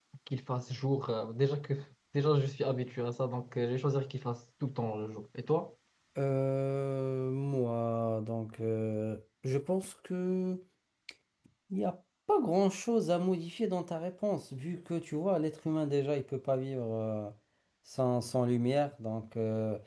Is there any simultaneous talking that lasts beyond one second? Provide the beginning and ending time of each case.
none

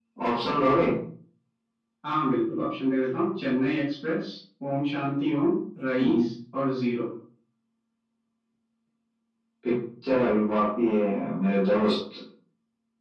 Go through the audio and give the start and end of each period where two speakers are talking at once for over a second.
none

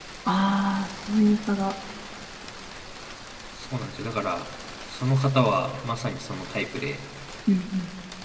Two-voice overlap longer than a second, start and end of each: none

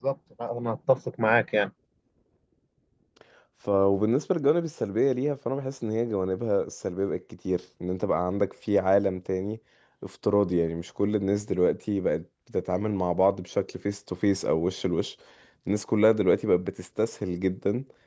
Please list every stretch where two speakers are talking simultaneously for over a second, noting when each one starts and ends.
none

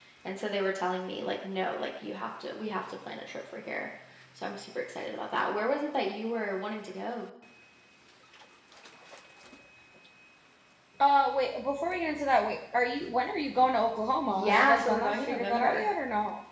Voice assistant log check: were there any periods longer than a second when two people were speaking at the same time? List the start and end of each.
14.3-15.9

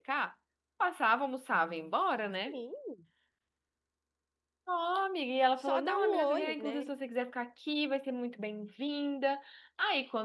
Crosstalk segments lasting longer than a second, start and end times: 5.6-6.8

